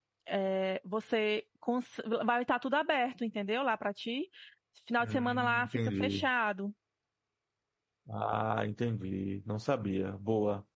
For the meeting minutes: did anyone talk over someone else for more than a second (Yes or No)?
Yes